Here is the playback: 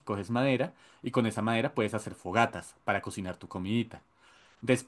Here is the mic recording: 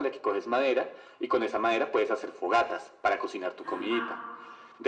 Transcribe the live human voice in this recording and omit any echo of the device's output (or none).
Ah,